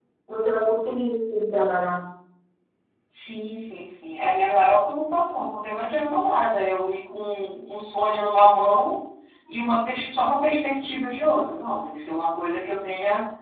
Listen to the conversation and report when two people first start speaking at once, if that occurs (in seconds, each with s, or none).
none